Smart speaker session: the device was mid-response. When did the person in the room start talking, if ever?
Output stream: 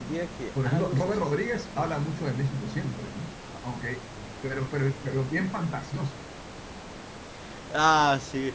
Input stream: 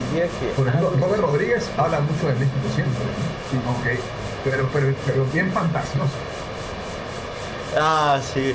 3.4 s

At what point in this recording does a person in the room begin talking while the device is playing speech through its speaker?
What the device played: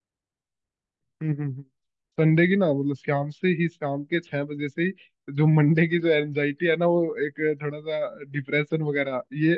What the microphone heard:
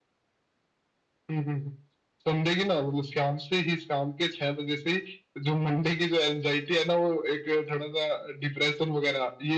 none

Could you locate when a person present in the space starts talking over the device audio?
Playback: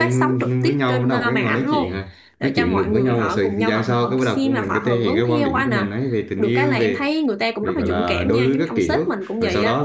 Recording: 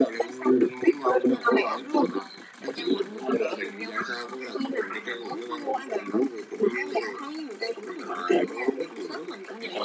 none

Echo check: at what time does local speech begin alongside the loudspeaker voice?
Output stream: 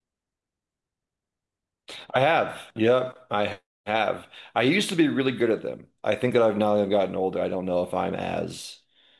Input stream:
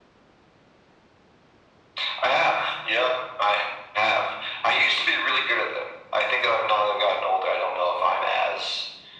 none

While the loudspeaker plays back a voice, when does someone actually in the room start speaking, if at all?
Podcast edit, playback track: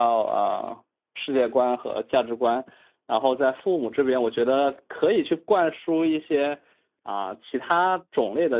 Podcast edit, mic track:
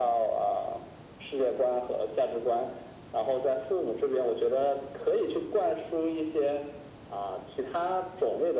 none

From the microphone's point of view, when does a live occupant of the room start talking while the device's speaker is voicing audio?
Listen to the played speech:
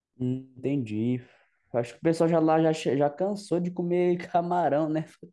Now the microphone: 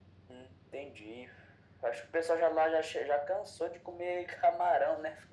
none

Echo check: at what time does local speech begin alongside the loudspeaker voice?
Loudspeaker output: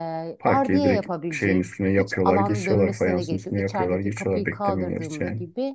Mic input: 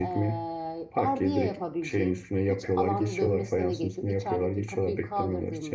none

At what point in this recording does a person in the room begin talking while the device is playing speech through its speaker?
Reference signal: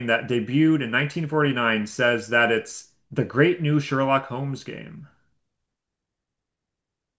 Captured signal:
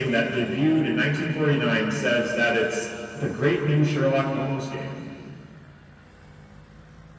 none

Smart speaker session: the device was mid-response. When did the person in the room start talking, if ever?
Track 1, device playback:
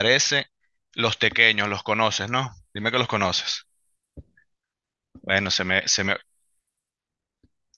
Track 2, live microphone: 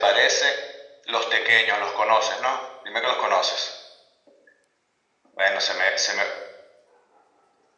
none

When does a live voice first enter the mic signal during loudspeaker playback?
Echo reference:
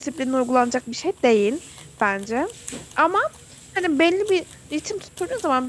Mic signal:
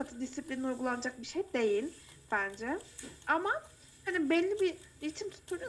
none

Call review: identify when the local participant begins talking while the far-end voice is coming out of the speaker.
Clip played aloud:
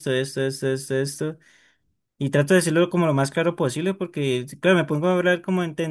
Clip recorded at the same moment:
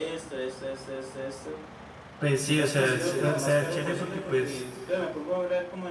2.2 s

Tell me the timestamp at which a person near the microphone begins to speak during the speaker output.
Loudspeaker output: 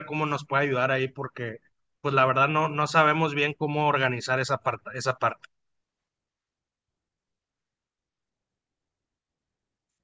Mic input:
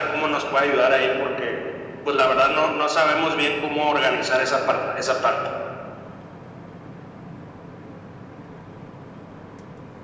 none

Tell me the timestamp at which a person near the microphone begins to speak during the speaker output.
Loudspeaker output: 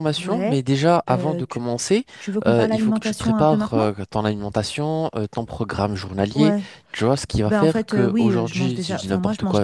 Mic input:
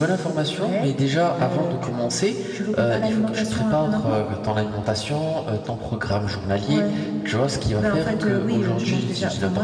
none

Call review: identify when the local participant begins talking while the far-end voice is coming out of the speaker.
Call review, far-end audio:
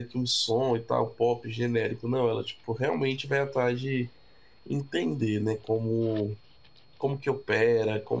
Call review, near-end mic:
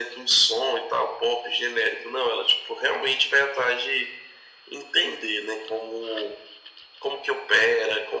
none

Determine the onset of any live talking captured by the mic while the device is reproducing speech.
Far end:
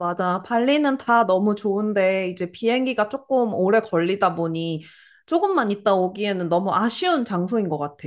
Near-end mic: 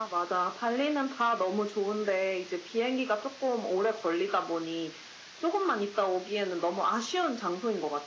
none

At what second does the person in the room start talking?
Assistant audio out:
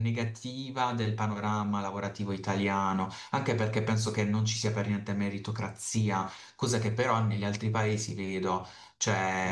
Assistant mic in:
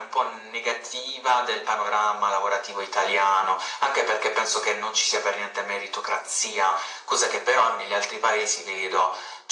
none

